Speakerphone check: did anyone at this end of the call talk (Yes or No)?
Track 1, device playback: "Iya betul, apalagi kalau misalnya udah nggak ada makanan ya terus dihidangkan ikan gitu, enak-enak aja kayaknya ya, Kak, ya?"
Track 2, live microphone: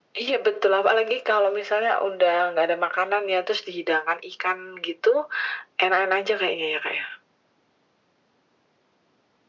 No